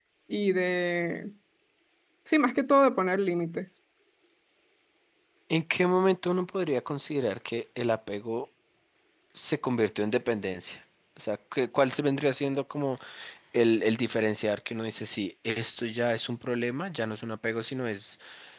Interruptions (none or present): none